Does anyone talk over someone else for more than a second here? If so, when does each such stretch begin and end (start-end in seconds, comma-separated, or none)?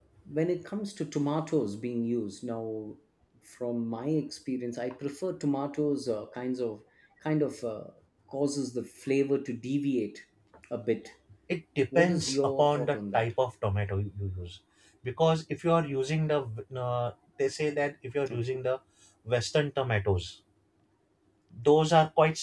11.9-13.2